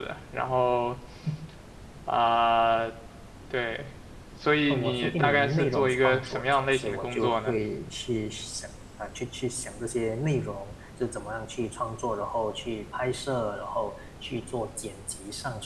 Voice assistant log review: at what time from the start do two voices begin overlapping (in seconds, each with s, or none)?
4.7 s